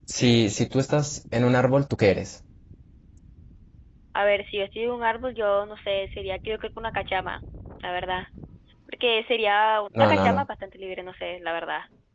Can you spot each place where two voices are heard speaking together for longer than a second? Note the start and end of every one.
none

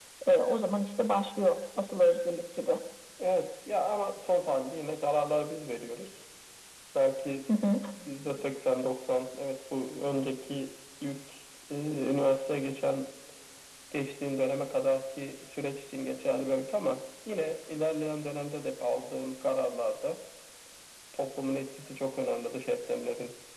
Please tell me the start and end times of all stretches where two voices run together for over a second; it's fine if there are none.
none

